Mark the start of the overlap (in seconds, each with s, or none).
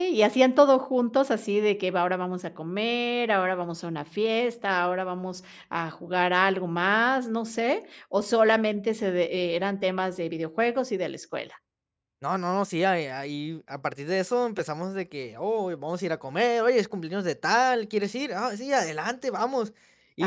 none